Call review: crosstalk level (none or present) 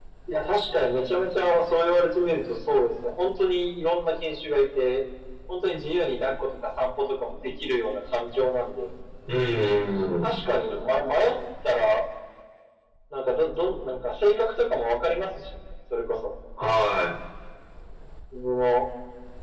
none